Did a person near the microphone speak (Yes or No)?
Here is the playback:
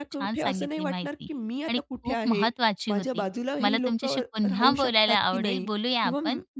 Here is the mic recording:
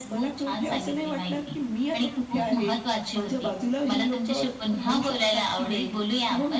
Yes